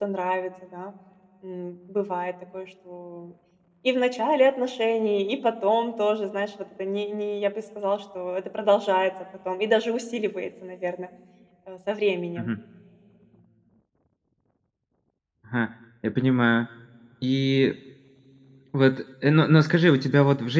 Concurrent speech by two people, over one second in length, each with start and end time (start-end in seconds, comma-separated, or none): none